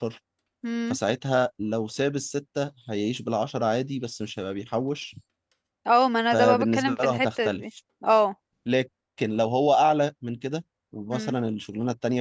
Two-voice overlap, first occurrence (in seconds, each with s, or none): 6.3 s